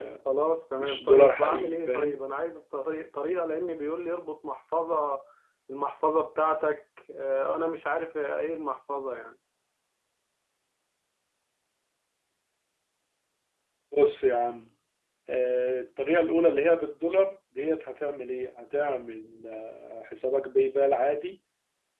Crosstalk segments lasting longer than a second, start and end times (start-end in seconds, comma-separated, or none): 0.8-2.2